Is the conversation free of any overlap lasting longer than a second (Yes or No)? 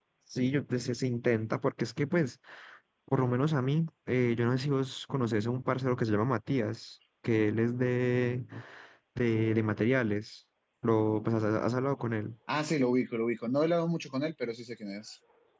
Yes